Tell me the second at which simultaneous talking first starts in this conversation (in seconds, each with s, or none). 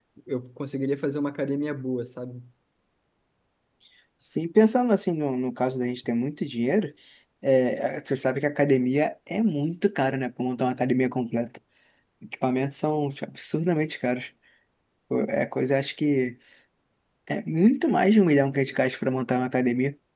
none